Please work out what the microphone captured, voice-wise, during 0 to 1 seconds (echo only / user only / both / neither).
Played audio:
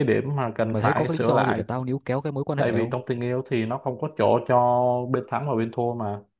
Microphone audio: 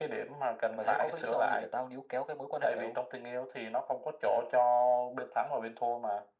echo only